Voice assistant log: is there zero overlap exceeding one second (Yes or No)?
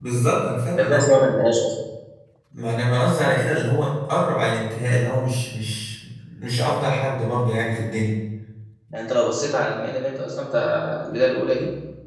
Yes